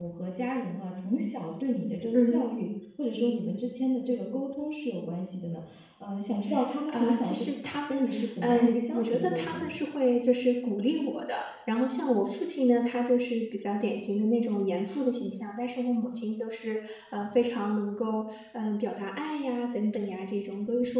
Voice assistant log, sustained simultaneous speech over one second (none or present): present